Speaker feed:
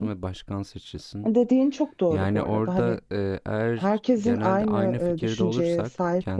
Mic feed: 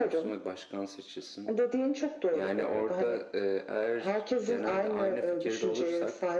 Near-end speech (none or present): none